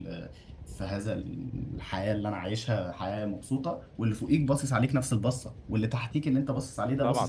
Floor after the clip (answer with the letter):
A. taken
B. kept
A